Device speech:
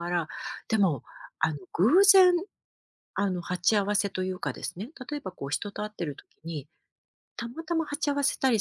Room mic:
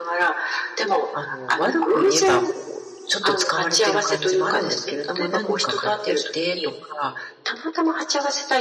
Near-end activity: present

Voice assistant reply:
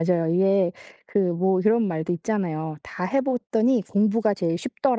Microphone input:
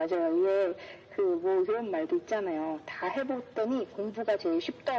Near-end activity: none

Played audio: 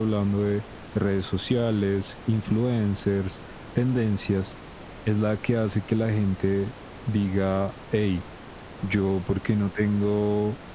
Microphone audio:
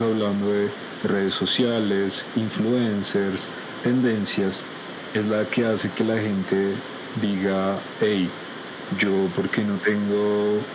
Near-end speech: none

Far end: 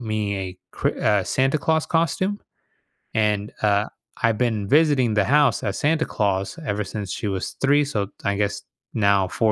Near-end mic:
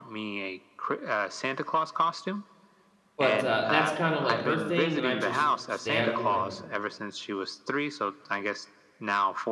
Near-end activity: present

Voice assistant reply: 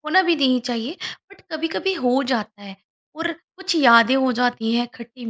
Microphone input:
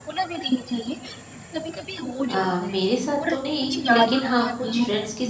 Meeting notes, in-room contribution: present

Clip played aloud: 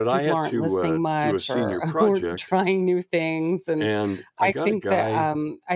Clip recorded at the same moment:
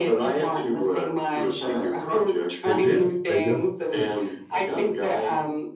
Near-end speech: present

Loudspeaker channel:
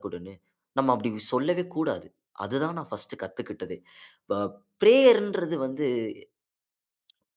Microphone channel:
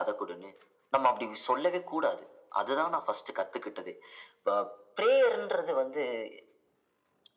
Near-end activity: none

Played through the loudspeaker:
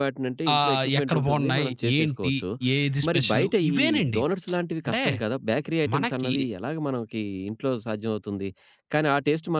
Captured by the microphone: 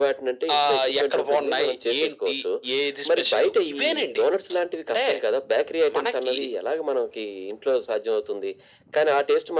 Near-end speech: none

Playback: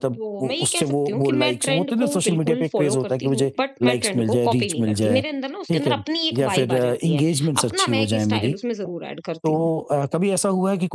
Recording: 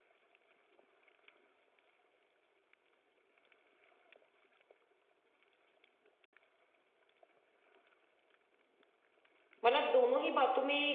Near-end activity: present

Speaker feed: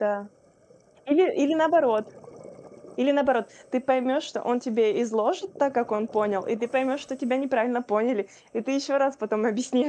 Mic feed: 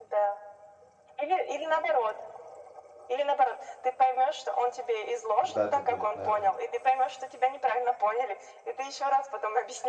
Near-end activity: present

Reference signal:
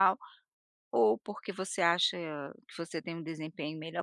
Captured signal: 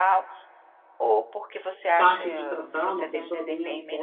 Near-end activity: present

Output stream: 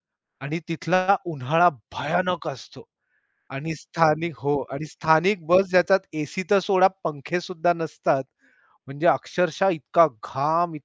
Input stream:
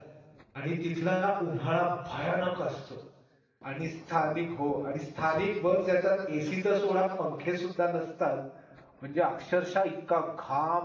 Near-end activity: present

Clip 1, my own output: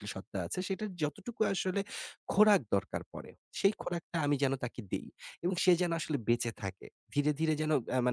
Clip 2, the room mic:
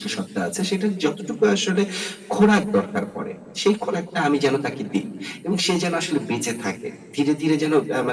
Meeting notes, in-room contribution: none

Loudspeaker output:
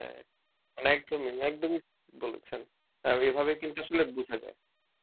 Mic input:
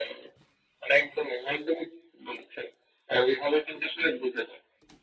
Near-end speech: none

